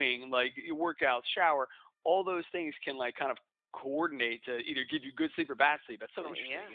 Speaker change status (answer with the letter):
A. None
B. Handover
B